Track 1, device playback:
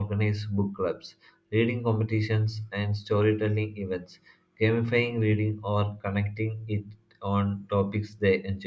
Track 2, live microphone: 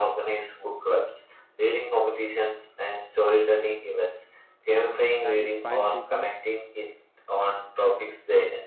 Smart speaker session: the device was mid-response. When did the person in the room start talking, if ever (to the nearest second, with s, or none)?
5 s